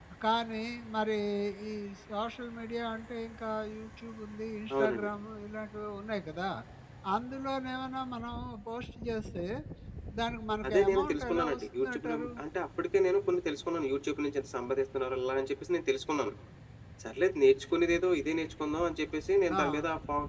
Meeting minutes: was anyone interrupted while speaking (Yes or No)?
Yes